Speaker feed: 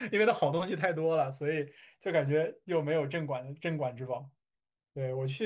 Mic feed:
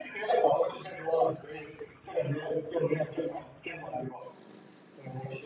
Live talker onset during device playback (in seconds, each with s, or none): none